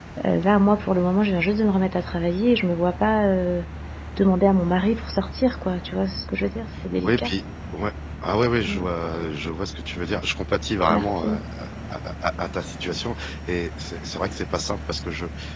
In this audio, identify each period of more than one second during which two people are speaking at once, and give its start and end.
none

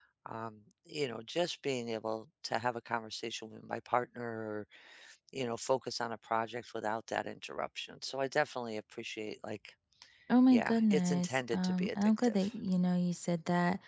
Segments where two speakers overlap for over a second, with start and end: 10.5-12.4

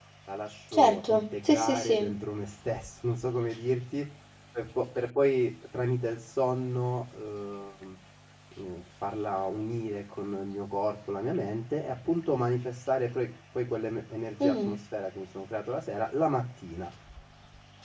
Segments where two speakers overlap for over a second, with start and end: 0.7-2.1

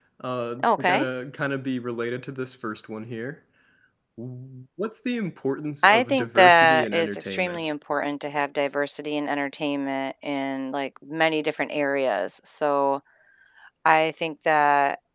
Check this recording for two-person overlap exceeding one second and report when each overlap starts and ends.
5.8-7.6

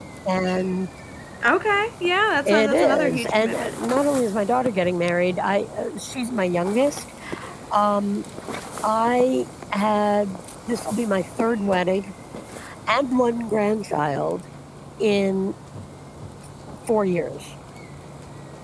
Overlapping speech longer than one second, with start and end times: 2.4-3.8

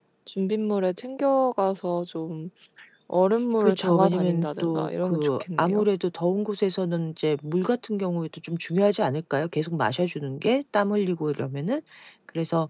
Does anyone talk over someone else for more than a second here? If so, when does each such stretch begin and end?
3.6-5.9

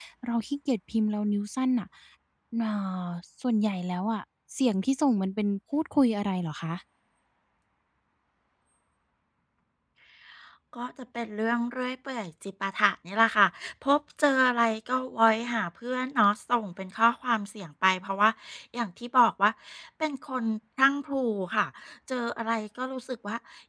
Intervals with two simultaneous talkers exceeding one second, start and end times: none

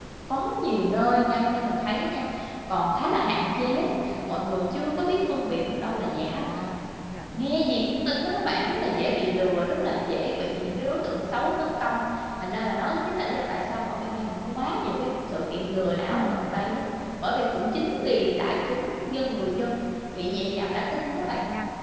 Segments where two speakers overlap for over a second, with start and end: none

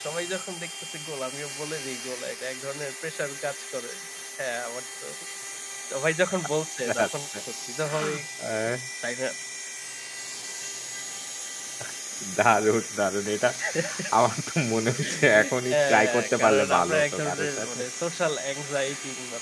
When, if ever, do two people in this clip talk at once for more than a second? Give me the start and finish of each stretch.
15.1-17.8

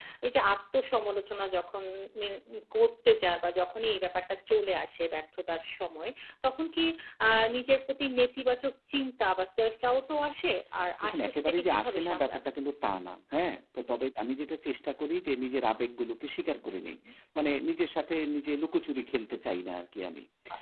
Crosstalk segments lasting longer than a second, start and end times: 11.0-12.4

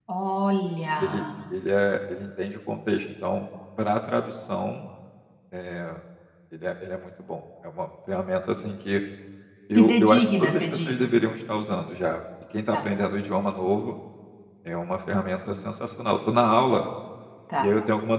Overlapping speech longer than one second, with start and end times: 9.7-11.1

